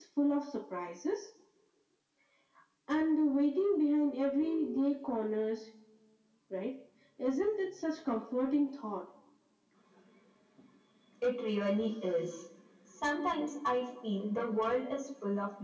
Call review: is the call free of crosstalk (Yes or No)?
Yes